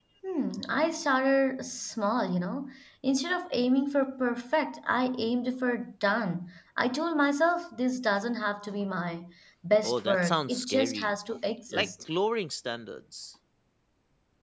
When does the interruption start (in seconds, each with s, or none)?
9.8 s